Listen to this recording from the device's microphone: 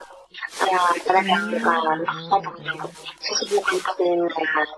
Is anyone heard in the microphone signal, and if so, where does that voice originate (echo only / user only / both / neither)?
both